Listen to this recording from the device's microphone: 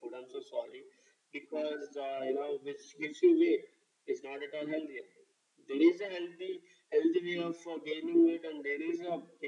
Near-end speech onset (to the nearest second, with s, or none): none